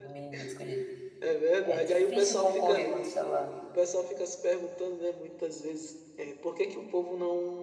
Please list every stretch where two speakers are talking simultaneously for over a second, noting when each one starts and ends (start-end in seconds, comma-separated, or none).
1.6-2.9